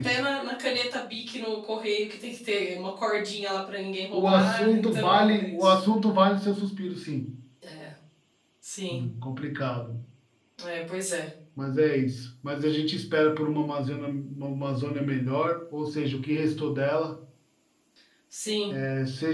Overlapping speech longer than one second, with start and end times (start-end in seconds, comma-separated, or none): 4.1-5.8